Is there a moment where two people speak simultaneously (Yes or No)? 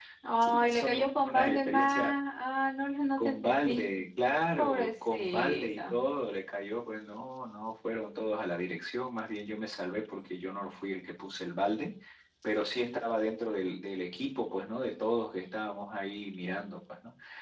Yes